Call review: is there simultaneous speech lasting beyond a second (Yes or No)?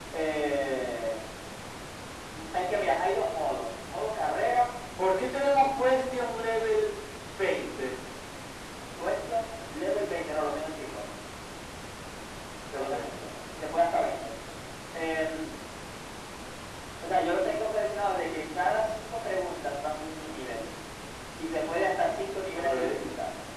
No